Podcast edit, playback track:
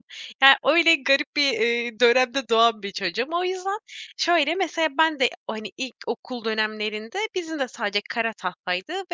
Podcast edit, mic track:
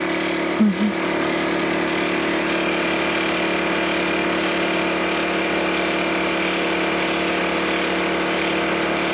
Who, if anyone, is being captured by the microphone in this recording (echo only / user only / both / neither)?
user only